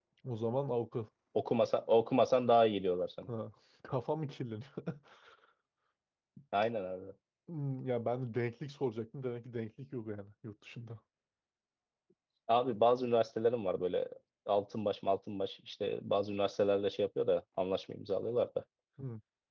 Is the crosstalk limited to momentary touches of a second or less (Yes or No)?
Yes